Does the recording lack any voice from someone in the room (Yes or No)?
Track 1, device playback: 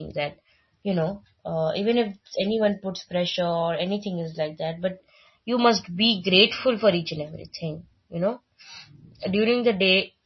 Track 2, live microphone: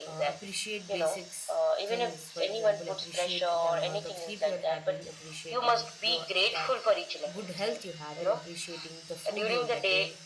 No